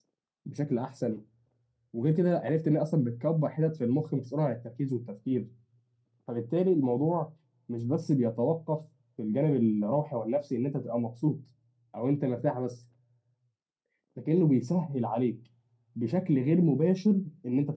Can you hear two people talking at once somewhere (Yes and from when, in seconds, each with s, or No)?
No